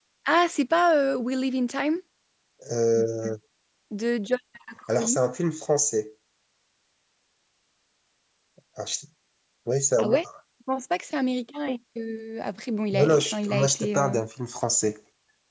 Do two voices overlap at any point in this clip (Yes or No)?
Yes